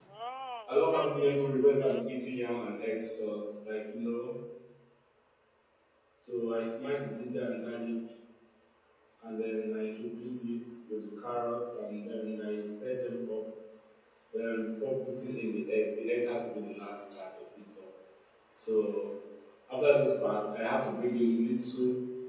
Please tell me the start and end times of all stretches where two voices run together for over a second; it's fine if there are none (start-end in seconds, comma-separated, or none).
0.7-2.0